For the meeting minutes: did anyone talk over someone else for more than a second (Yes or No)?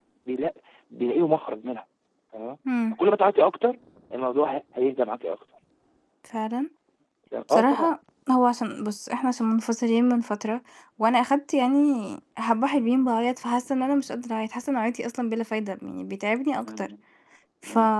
No